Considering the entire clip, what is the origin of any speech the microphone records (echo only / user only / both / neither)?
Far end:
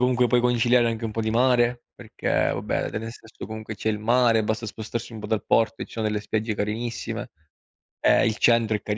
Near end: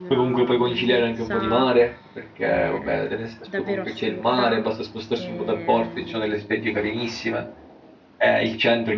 both